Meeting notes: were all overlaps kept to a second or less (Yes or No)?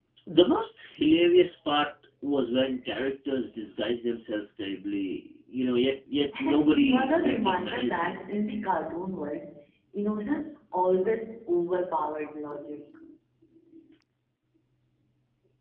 No